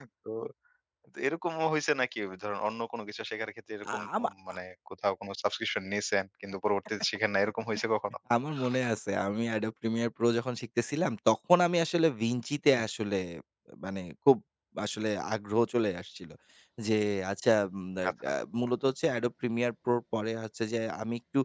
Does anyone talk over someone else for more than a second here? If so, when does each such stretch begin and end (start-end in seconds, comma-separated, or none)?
none